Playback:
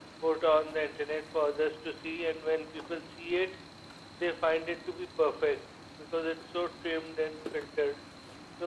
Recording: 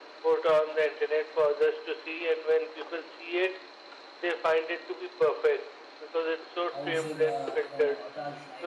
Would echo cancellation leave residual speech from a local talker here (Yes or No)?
Yes